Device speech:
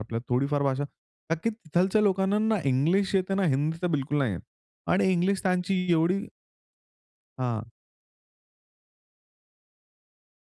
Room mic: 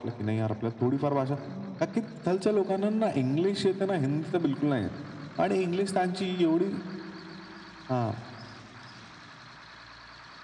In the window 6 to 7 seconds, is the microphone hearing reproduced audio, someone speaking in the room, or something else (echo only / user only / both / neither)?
echo only